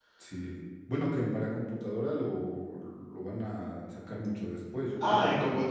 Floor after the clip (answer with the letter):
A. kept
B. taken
B